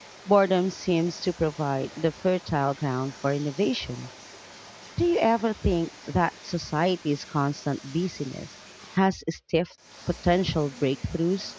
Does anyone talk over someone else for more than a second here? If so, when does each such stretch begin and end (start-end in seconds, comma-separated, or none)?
none